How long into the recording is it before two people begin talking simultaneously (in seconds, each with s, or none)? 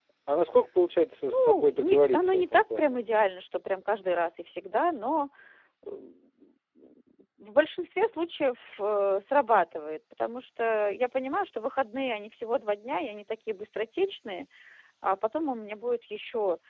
1.3 s